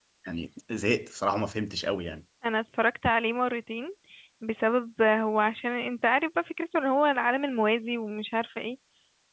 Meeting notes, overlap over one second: none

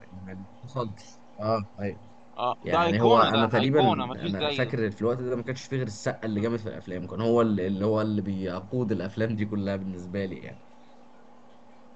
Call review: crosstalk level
present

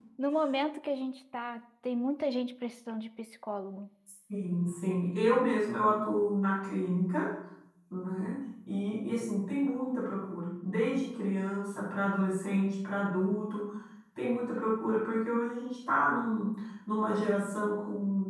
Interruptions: none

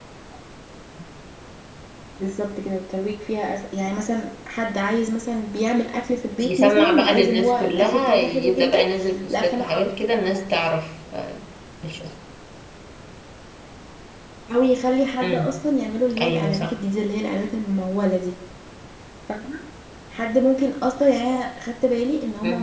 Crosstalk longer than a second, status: present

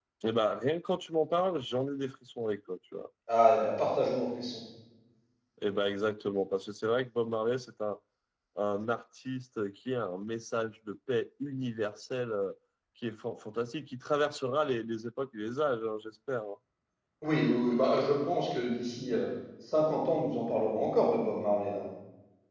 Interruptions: none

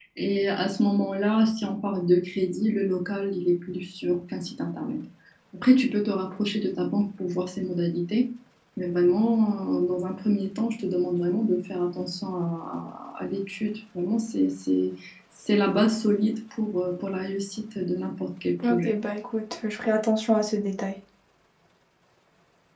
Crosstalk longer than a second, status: none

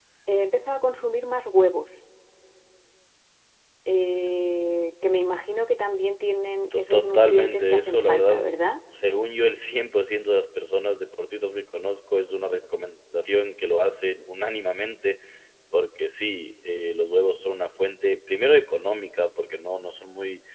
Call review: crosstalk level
present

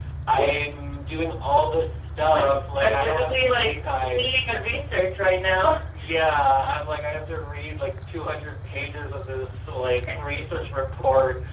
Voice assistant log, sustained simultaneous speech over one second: present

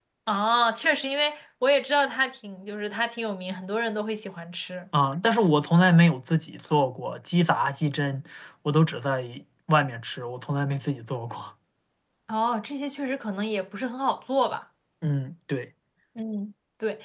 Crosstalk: none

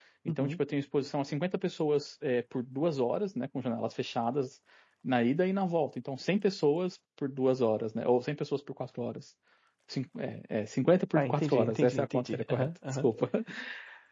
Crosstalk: present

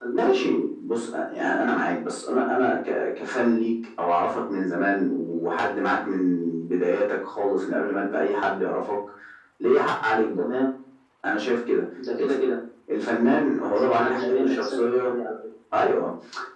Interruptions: present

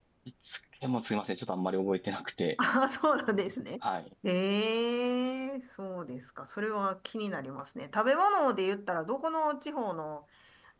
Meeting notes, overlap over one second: none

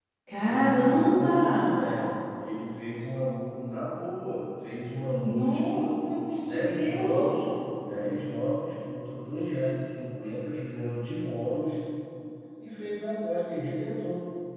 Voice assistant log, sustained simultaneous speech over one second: present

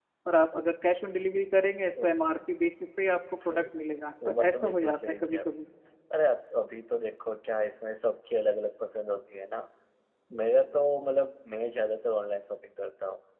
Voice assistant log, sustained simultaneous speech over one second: present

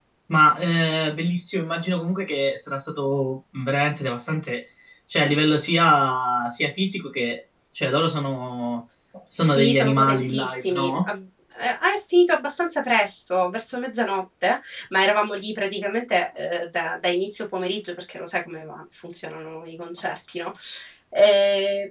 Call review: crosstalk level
present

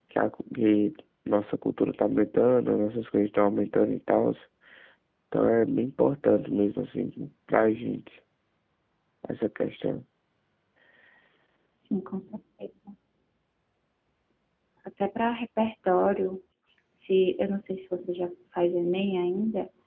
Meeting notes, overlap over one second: none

